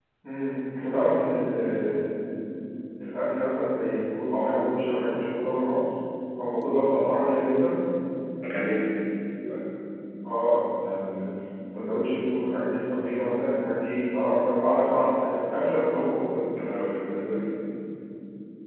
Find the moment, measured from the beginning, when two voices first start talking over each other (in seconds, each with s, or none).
none